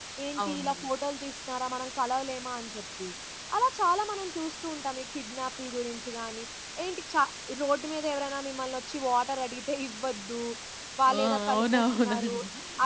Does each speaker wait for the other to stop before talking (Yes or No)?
No